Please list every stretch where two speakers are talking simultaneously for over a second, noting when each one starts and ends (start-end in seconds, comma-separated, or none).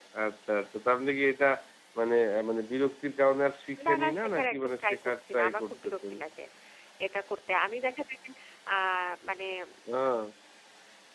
3.9-6.1